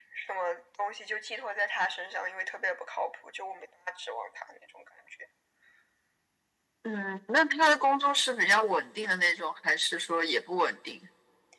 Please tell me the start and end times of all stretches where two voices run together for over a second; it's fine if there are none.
none

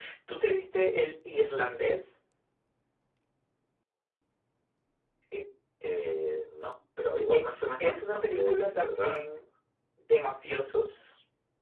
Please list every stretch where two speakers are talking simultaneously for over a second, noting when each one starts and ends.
7.3-9.2

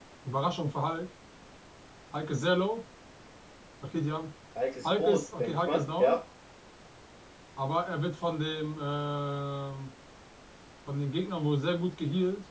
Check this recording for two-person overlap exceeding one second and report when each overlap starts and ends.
4.8-6.2

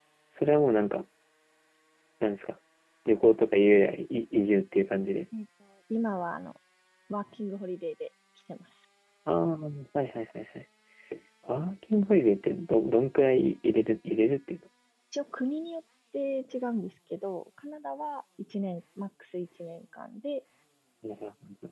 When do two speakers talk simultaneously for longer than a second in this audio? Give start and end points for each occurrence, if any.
none

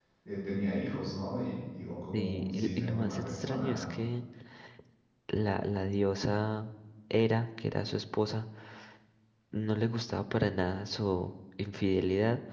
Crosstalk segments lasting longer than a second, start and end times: 2.1-3.9

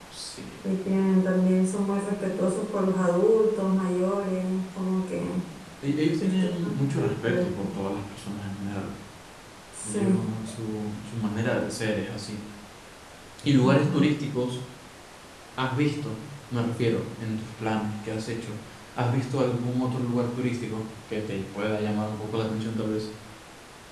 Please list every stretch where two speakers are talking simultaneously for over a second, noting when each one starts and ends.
6.2-7.5

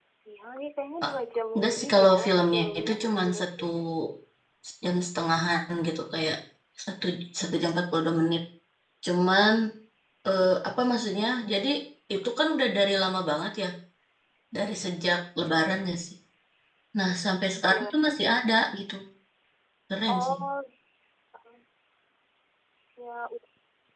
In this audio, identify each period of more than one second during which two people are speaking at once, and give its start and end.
1.6-3.6

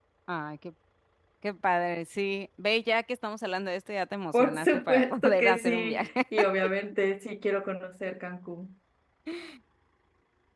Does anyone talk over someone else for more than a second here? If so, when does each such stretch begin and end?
4.3-6.1

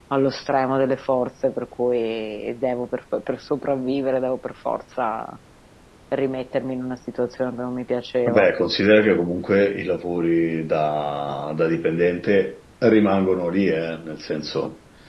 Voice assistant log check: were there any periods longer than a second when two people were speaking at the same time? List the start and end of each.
none

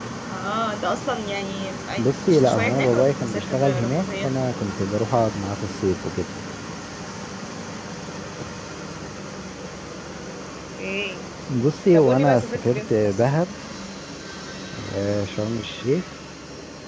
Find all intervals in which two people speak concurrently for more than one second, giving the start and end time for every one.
2.3-4.3, 11.9-13.2

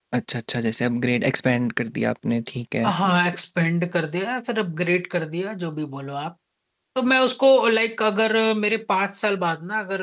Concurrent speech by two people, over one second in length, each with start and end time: none

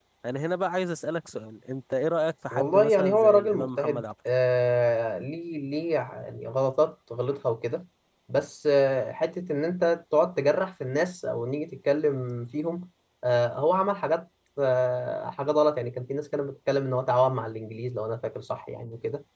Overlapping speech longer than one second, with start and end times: 2.5-4.0

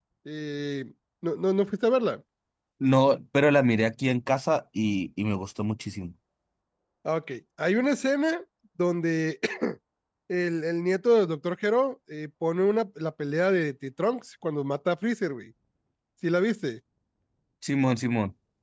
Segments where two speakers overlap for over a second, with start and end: none

